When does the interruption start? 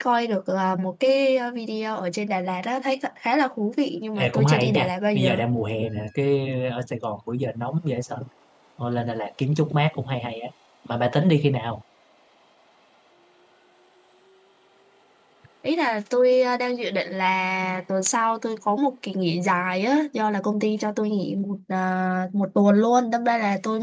4 s

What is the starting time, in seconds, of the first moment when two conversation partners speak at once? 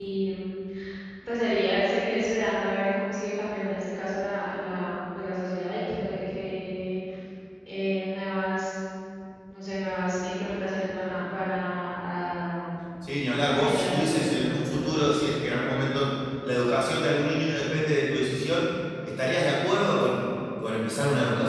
14 s

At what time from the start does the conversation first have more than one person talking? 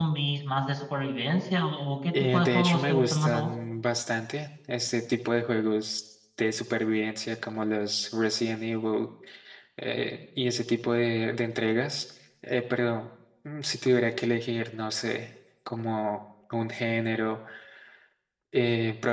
2 s

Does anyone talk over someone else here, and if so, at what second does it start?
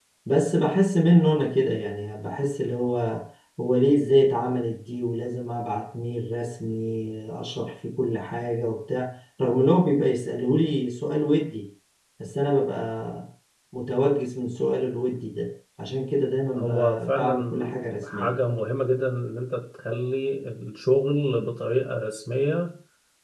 17 s

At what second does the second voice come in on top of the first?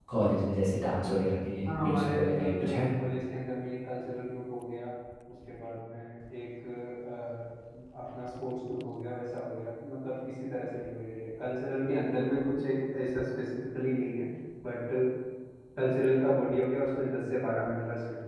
2 s

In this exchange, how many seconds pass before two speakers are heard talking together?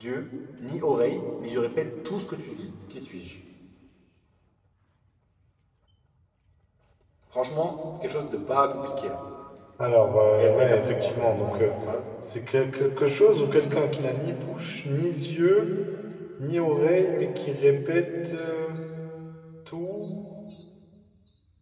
10 s

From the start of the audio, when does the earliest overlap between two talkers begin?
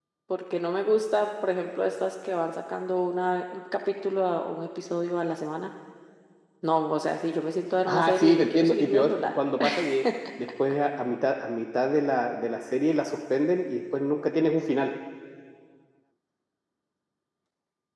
8 s

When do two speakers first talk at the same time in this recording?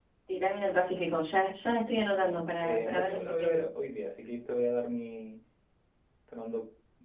2 s

